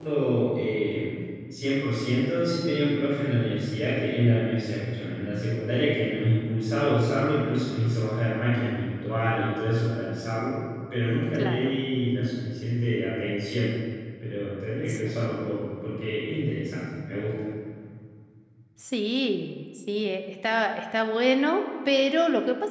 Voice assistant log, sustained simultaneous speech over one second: none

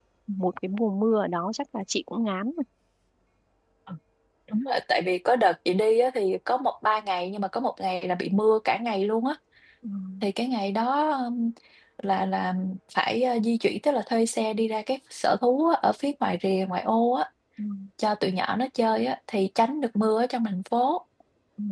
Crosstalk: none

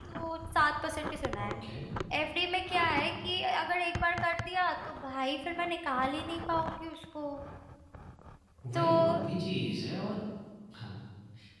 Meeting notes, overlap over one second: none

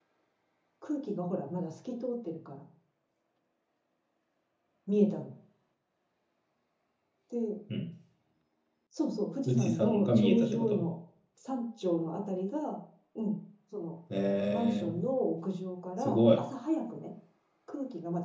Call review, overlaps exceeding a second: present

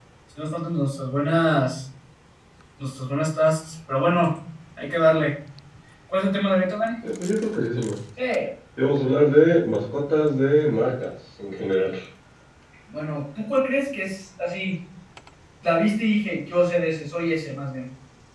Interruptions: none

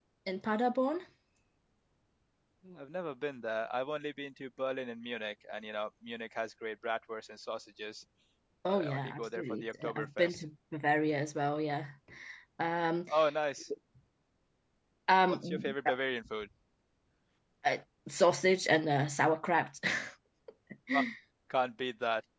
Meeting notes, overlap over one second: present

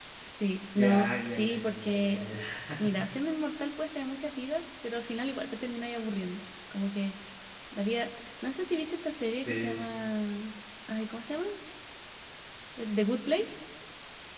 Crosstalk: present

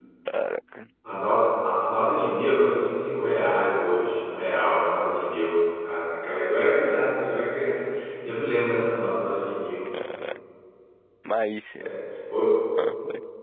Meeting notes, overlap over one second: none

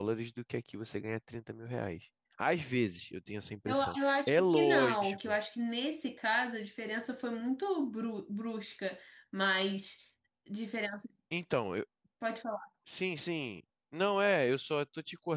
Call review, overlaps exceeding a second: present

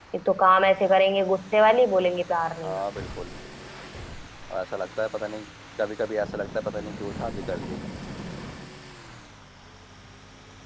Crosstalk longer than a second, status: none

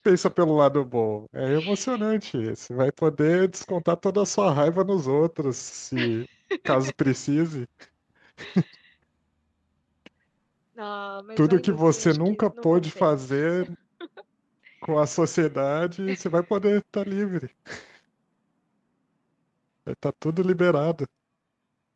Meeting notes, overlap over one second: present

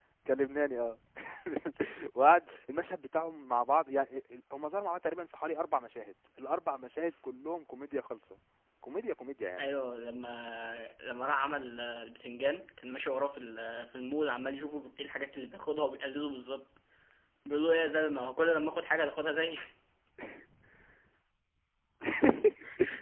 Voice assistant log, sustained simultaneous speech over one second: none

